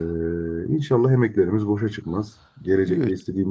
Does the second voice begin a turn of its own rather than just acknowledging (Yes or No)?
No